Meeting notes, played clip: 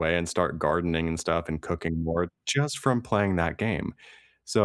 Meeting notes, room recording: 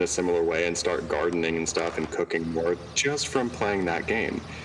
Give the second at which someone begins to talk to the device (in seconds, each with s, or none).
none